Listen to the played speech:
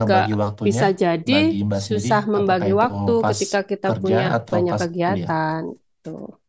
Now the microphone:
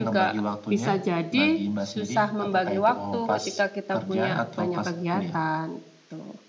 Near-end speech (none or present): none